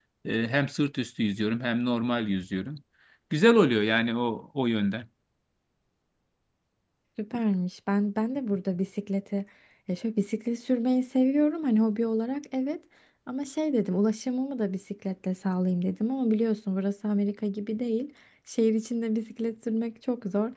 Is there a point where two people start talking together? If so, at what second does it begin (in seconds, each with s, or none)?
none